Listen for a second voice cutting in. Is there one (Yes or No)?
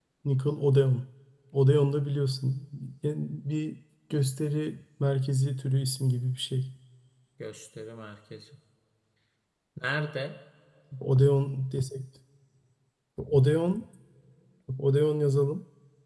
No